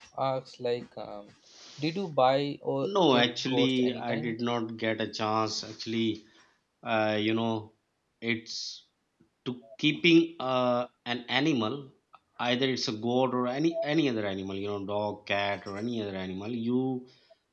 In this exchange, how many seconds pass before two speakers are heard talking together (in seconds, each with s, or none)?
3.1 s